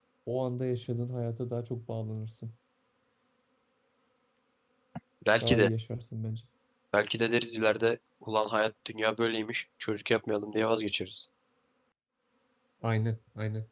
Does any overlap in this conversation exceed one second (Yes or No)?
No